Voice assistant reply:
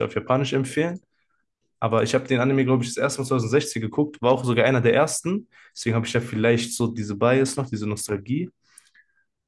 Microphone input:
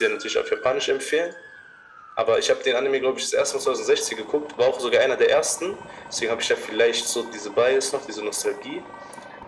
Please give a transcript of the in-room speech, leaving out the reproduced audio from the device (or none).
none